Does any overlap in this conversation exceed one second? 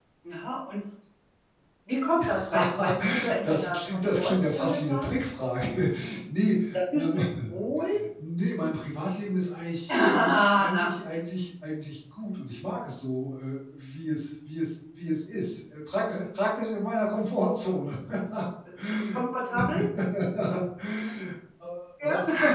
Yes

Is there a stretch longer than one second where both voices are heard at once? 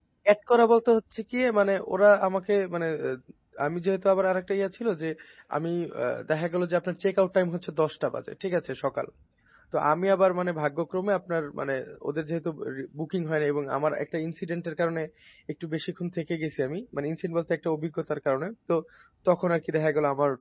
No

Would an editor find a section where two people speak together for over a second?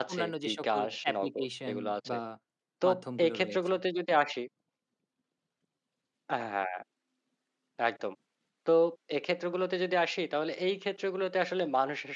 Yes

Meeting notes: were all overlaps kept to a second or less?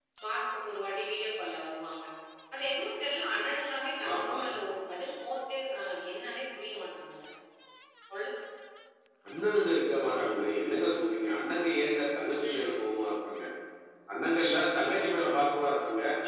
Yes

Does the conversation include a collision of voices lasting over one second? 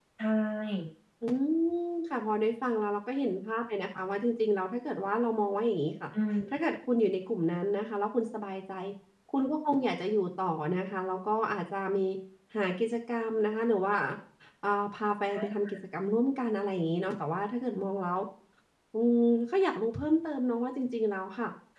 No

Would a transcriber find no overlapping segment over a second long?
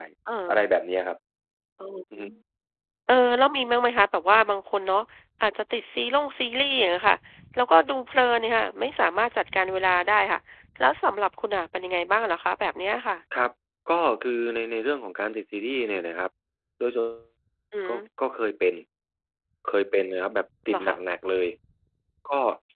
Yes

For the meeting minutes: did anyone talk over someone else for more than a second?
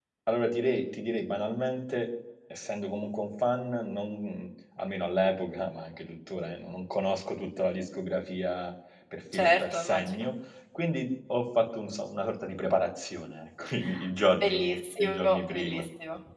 Yes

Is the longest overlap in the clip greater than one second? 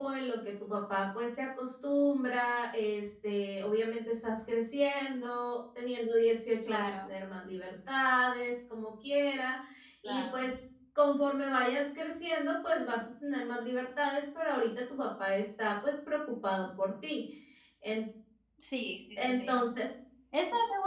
No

